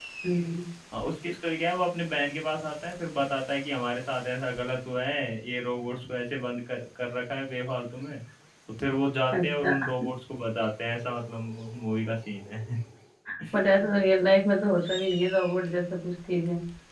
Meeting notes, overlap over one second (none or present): none